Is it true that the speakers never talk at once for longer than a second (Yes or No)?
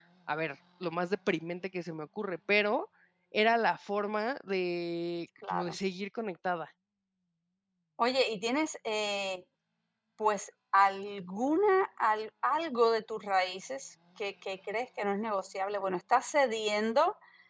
Yes